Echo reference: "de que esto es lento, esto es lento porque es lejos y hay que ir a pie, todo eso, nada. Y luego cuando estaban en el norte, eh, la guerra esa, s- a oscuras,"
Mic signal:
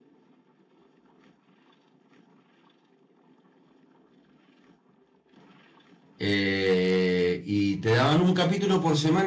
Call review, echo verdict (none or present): none